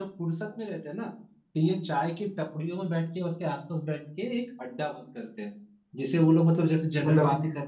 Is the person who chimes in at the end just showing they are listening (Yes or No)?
Yes